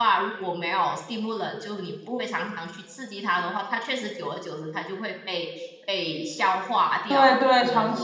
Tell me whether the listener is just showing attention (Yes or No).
No